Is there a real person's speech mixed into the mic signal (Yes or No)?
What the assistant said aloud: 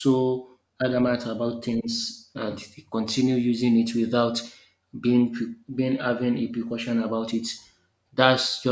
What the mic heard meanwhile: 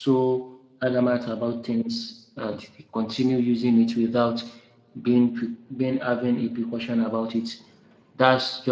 No